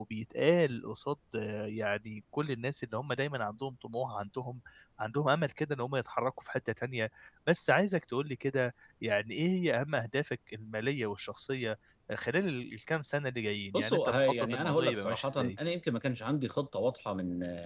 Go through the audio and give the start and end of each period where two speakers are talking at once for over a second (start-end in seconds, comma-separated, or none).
13.7-15.5